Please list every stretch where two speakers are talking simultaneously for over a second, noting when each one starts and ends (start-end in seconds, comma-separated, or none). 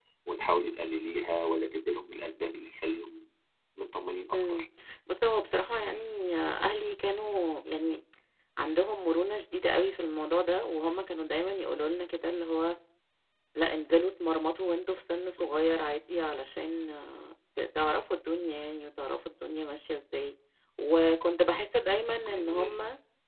none